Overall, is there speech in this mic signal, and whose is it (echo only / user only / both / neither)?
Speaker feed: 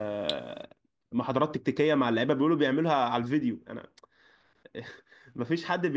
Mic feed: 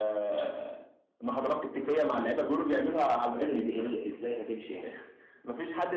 both